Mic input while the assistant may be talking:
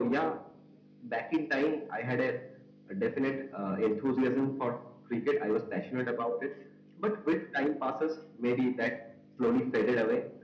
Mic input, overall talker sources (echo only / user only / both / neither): echo only